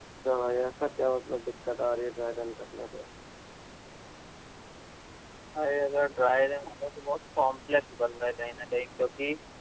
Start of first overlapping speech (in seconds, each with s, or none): none